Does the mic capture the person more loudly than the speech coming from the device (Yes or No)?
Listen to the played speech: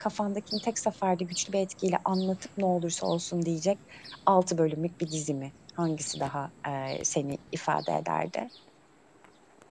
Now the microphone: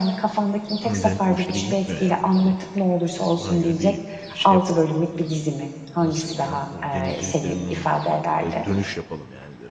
No